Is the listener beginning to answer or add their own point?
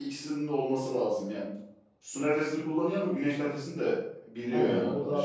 Yes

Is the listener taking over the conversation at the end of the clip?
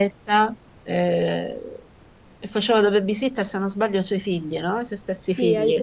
Yes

